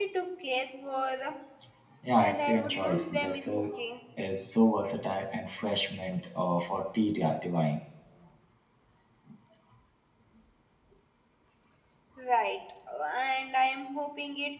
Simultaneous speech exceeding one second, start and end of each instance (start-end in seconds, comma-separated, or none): 2.2-3.7